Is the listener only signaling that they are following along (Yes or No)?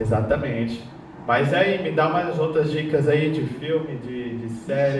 No